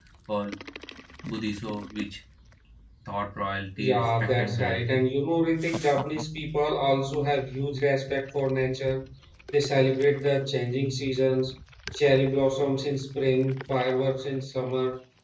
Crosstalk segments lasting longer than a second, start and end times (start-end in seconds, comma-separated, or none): 3.8-5.0